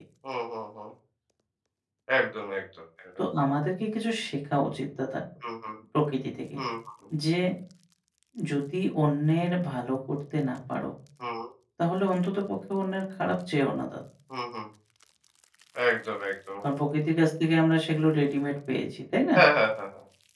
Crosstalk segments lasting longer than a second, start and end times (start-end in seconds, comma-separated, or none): none